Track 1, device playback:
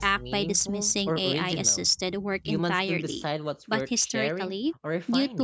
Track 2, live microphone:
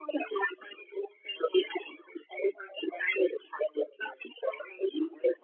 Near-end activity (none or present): none